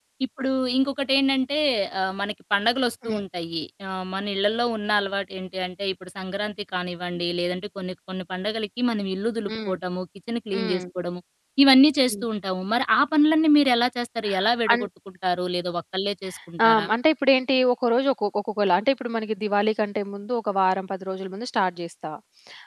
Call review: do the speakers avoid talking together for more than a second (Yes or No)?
Yes